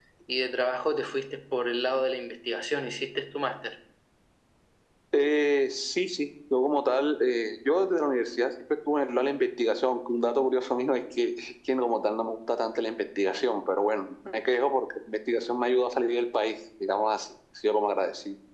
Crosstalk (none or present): none